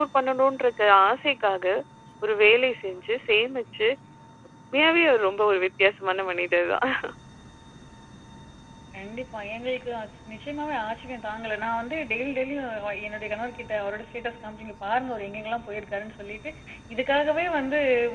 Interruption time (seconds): none

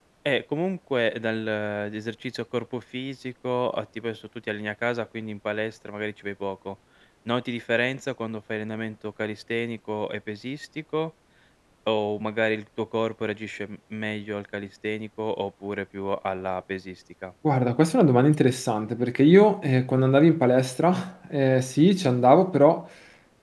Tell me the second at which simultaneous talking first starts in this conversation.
none

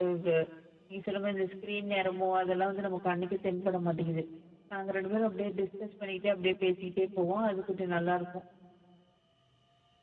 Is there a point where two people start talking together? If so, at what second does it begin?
none

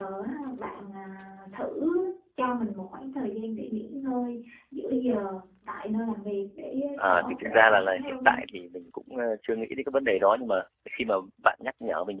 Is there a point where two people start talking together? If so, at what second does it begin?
7.0 s

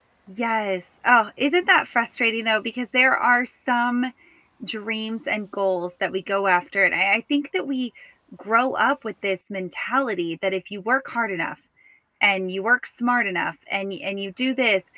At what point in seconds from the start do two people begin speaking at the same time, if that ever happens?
none

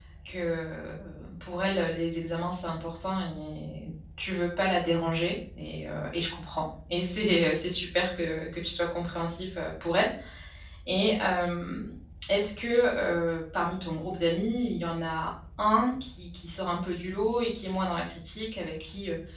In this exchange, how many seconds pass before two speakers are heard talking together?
none

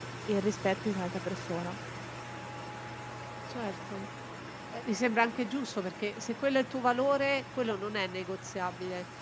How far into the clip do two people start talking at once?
none

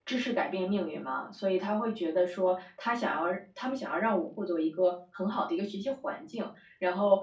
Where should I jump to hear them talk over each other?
none

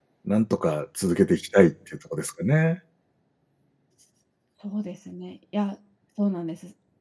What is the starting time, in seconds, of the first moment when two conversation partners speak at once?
none

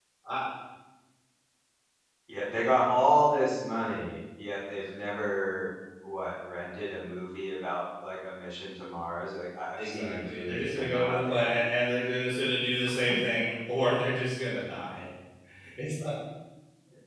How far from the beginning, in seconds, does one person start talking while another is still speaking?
9.8 s

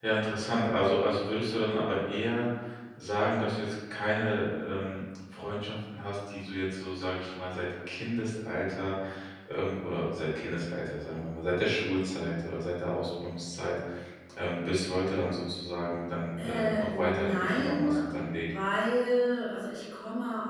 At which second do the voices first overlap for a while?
16.4 s

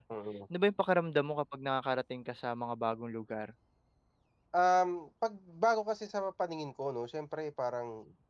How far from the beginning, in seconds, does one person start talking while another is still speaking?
none

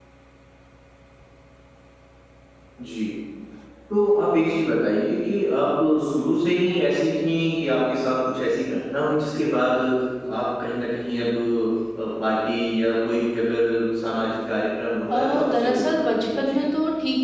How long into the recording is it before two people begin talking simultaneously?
15.1 s

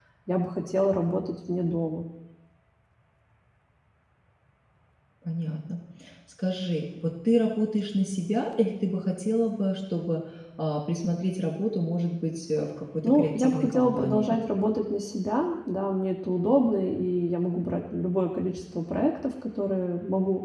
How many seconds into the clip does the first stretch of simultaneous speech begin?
13.0 s

